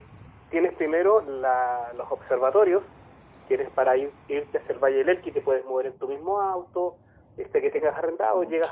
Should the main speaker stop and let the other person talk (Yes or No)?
No